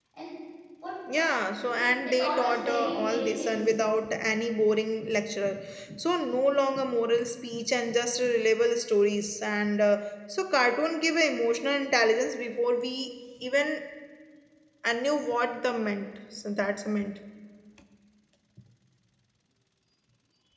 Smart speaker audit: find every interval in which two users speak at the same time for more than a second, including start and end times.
1.7-3.6

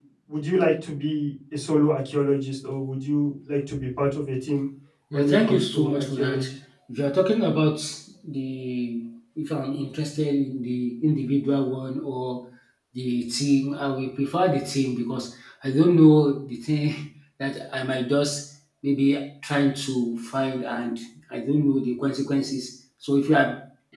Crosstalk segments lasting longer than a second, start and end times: 5.1-6.4

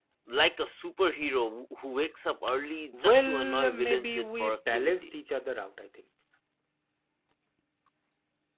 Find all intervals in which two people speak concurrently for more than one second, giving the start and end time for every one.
2.9-5.0

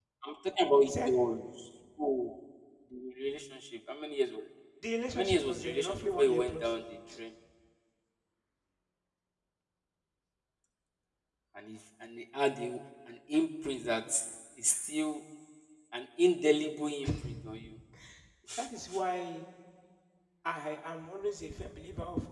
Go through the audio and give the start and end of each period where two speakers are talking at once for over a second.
5.1-6.7

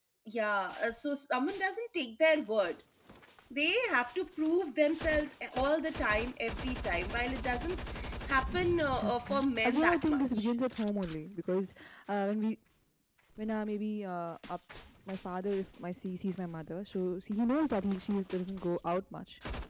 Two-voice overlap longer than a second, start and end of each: 9.0-10.5

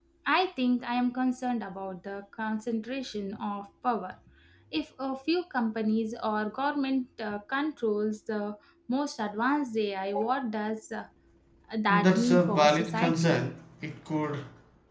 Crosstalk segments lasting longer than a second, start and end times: 11.9-13.4

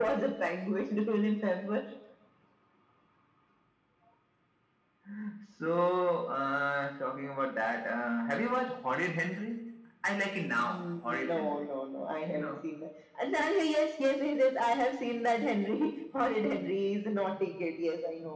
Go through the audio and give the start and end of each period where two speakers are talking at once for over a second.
10.4-11.7

